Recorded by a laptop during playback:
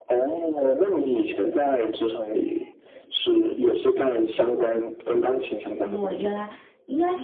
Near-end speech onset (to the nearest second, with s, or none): 6 s